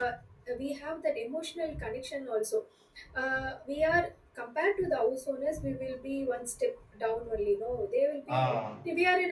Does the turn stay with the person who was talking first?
Yes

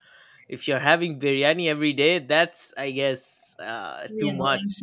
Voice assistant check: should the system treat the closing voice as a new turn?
Yes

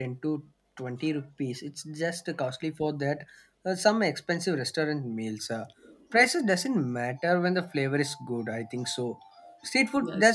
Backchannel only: Yes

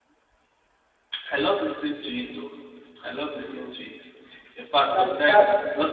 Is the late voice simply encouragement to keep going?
Yes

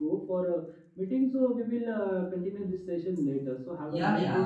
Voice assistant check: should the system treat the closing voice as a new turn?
Yes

